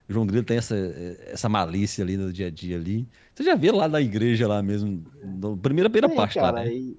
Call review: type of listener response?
taking over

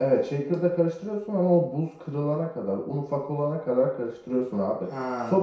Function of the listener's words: listening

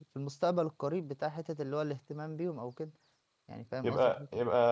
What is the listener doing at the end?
taking over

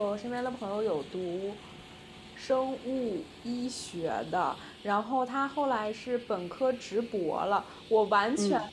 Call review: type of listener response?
listening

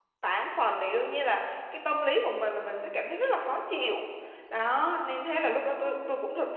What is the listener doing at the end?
listening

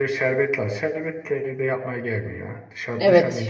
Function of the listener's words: taking over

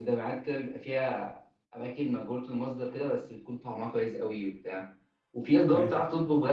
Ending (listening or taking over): listening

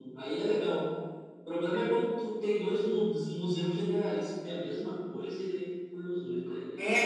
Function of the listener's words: taking over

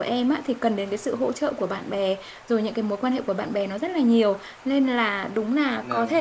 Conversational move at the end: listening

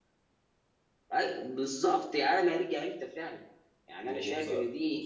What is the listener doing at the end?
taking over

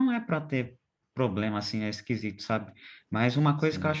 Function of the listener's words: listening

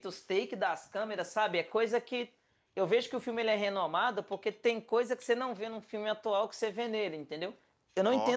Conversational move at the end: listening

